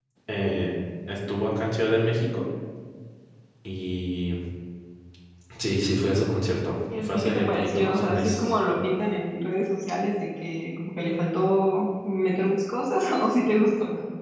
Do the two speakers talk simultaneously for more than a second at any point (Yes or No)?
Yes